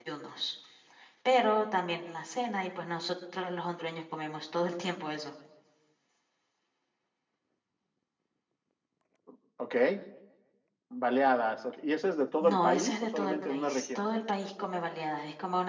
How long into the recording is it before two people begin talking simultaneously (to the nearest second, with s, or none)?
12 s